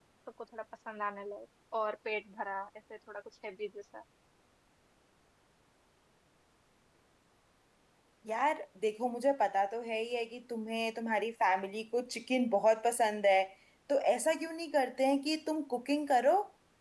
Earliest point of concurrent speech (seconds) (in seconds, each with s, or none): none